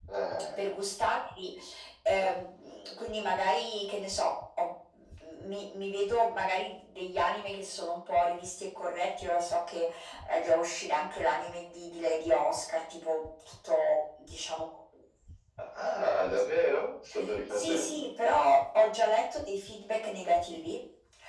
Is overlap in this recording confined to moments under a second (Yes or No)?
Yes